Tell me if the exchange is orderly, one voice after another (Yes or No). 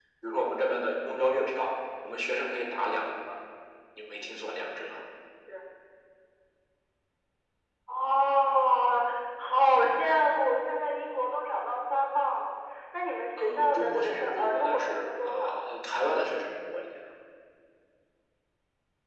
No